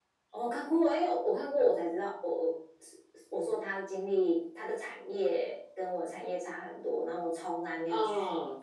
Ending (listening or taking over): listening